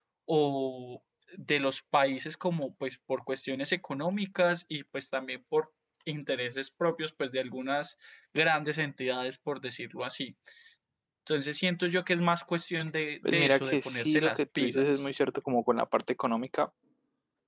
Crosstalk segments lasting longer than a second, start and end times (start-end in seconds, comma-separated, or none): 13.2-15.1